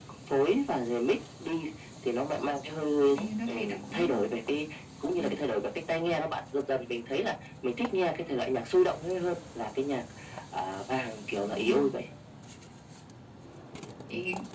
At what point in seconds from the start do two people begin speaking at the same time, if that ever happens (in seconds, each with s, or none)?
3.0 s